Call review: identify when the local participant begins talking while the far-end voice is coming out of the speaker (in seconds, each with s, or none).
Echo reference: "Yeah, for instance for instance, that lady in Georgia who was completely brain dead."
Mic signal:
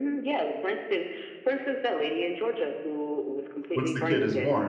3.8 s